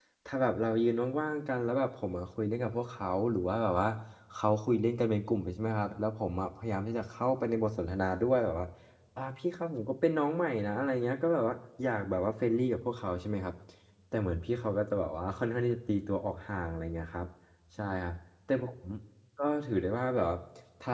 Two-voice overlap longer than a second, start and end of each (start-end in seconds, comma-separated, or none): none